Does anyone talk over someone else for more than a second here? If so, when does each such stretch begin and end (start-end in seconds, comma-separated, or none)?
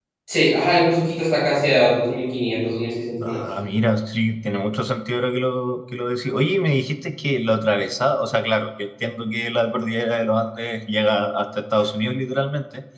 none